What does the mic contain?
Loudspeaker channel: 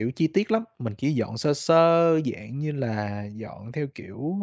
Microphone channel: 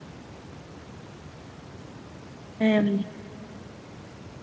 user only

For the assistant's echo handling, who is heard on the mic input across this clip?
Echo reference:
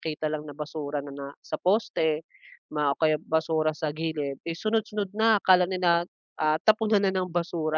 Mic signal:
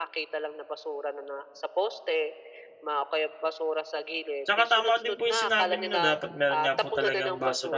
both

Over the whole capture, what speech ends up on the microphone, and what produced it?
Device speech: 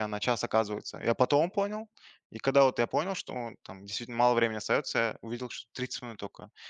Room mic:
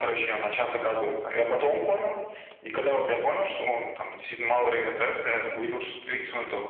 echo only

